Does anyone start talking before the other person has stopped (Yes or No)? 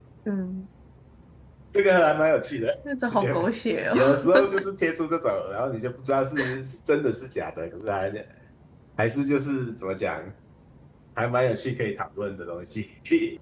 Yes